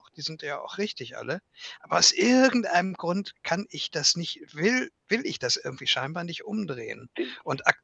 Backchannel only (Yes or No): Yes